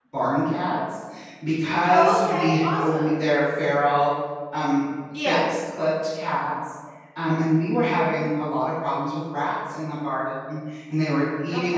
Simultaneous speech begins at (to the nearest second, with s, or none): 2 s